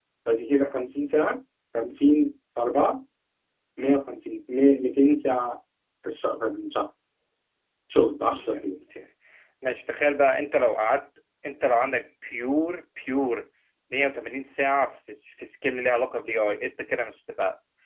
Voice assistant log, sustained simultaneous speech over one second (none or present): none